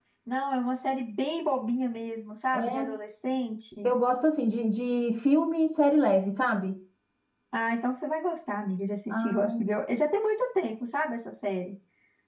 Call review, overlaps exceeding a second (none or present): none